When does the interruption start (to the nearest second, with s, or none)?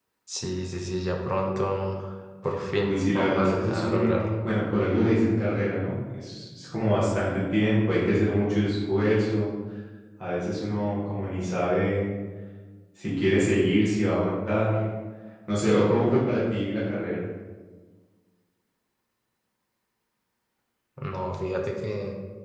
3 s